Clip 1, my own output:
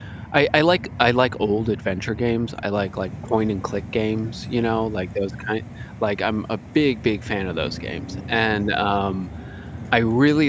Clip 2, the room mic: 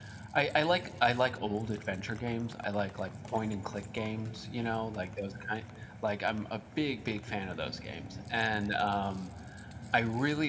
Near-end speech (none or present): none